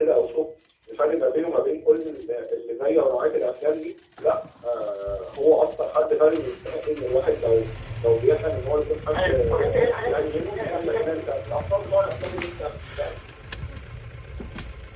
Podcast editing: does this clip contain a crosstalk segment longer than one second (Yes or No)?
Yes